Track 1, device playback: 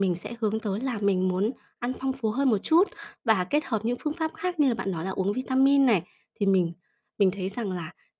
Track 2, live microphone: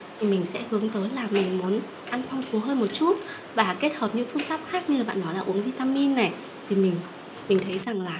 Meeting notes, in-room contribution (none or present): none